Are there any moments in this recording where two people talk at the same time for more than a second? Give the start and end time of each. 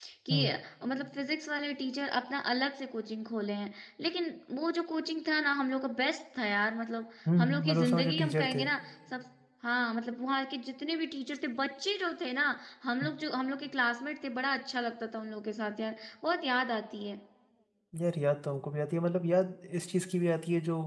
7.4-8.7

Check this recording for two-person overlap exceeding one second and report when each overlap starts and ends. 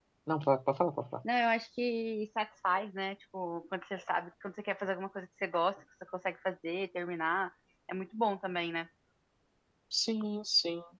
none

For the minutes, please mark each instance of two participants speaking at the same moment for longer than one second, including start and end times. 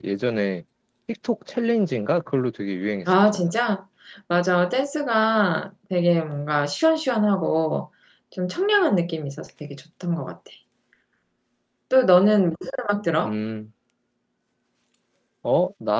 none

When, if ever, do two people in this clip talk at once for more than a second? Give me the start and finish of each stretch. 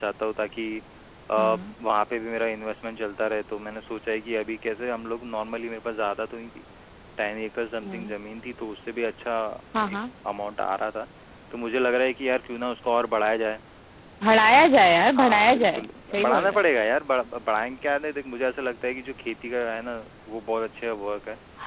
15.2-16.6

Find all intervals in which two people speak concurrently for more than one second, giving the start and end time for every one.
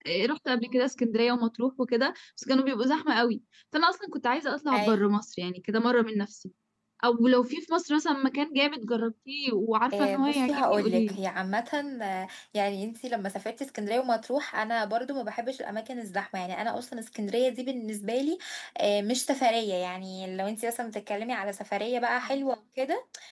9.9-11.2

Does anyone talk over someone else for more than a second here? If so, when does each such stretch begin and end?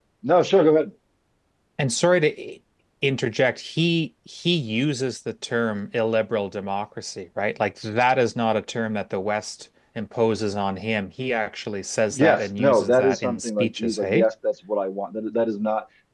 12.1-14.3

